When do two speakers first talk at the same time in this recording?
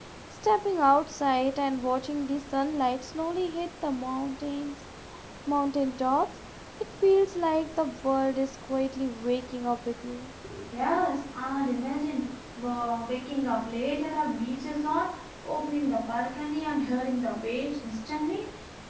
none

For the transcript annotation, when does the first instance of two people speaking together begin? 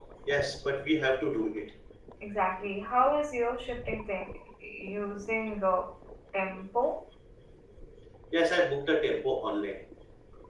none

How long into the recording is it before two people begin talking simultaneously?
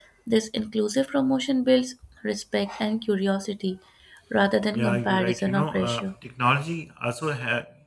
4.7 s

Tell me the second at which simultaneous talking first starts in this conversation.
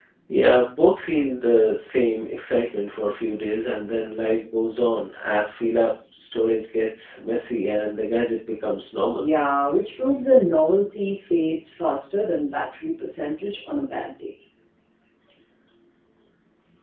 none

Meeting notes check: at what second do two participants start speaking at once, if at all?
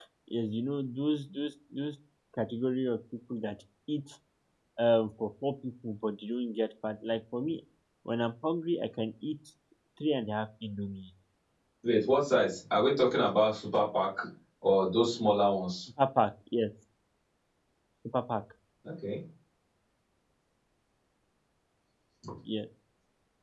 none

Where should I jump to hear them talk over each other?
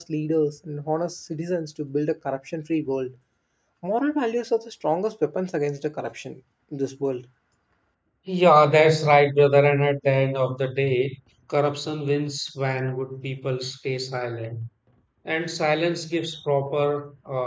none

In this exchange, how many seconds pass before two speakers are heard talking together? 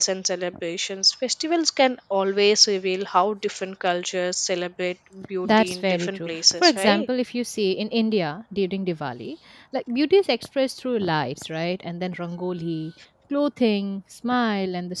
5.4 s

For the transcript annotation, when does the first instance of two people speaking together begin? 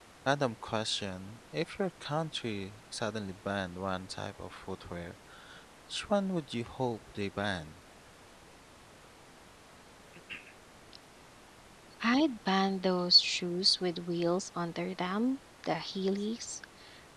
none

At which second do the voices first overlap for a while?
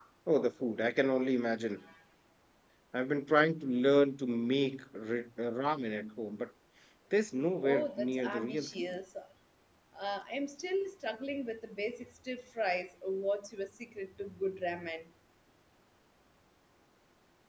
7.6 s

